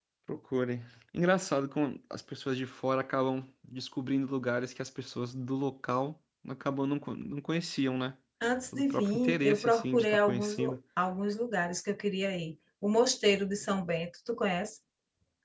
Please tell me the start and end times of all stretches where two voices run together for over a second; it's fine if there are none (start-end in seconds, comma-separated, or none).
8.8-10.8